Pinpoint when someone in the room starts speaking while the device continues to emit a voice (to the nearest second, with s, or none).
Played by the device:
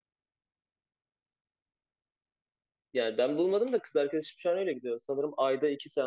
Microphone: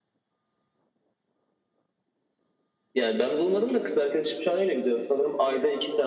none